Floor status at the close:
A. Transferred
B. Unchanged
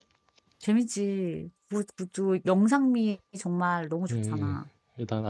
A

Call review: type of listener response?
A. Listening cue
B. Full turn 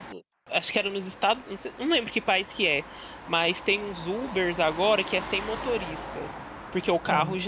A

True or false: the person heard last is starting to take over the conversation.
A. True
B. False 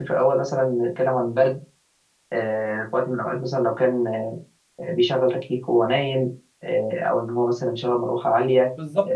A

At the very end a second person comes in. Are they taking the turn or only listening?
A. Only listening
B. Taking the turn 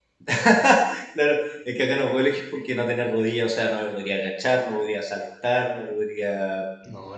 A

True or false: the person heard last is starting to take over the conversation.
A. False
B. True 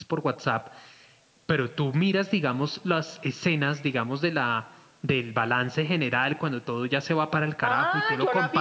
B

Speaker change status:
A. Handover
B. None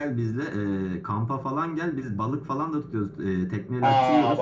A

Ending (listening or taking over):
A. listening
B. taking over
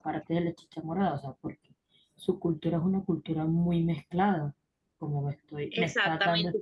B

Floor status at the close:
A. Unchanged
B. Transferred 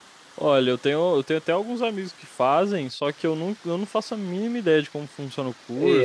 B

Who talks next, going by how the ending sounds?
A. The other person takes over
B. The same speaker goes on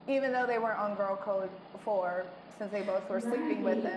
A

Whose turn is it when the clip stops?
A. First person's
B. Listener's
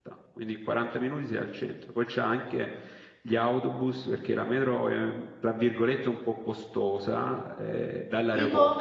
A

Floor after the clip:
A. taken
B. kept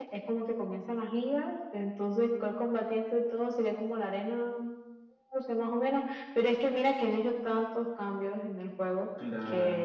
B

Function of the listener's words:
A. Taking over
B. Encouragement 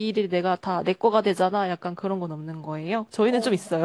A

